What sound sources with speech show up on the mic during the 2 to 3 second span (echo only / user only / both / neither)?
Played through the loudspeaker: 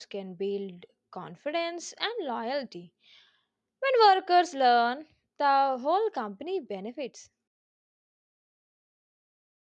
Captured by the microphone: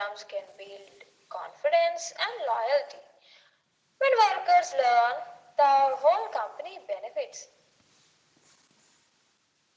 echo only